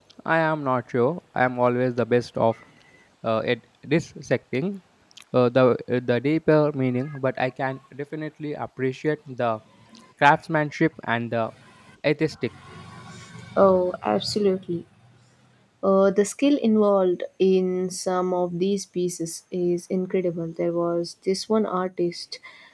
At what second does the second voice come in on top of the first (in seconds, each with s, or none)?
none